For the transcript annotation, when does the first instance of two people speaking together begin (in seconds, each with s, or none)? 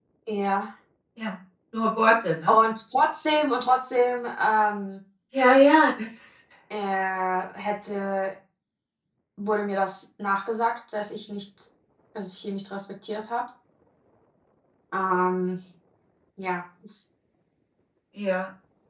none